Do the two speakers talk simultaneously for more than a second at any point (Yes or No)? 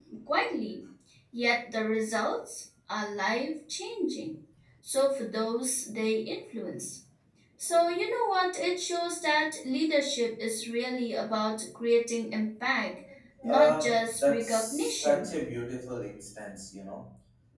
Yes